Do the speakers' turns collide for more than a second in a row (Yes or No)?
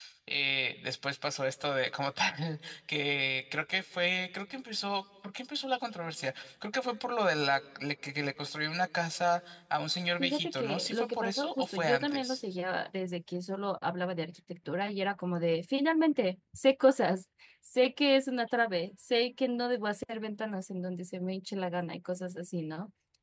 Yes